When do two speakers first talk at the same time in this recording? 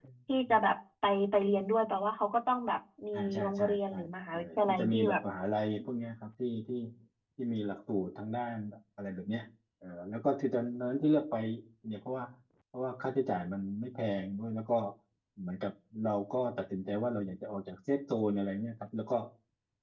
3.1 s

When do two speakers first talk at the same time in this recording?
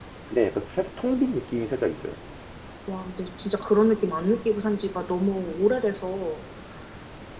none

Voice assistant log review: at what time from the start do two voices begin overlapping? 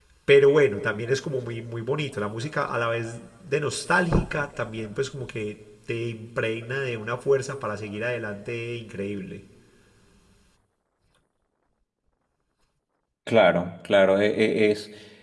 none

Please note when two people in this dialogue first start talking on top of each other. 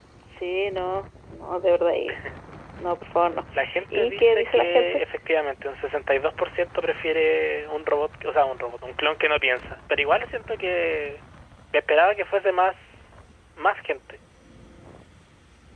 3.8 s

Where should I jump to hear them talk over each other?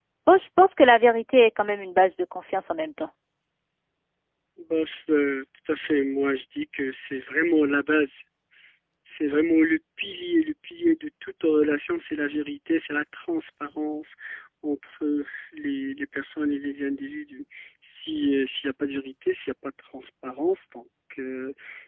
none

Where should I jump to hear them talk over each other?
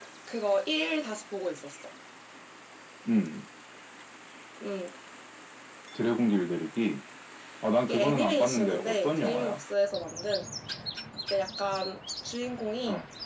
7.8 s

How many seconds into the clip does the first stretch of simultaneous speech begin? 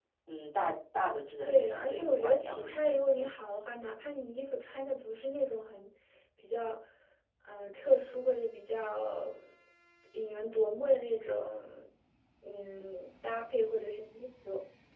1.4 s

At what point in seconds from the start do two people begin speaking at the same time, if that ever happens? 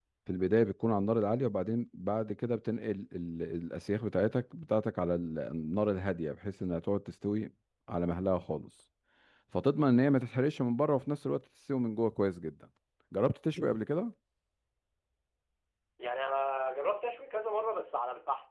none

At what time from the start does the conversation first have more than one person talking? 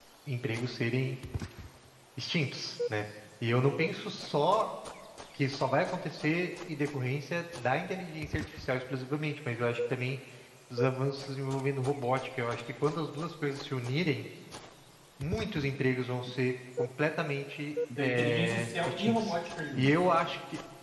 18.0 s

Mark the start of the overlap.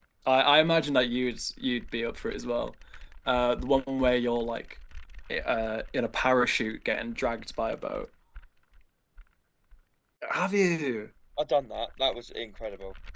none

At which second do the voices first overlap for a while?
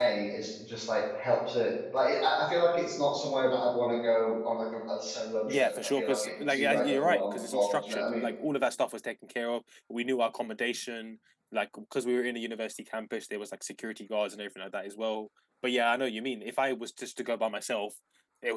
5.5 s

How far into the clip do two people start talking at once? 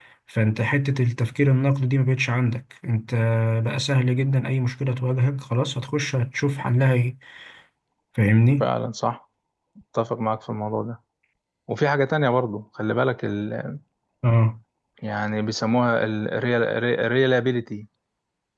none

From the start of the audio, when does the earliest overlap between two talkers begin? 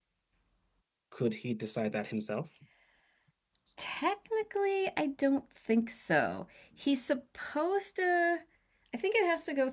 none

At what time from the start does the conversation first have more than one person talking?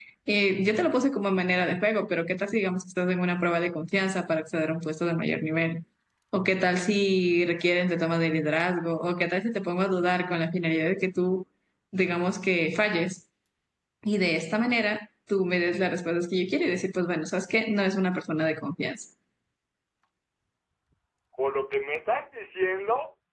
none

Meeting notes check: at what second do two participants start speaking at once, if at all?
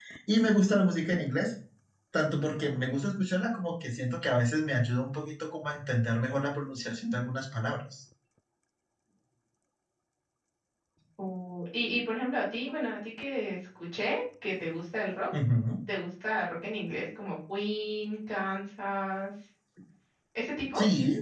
none

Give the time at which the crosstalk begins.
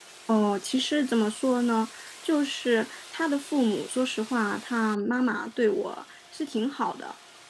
none

